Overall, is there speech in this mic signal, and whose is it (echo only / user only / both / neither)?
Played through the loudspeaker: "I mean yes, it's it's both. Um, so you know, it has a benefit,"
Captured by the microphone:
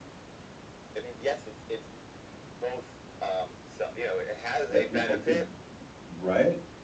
both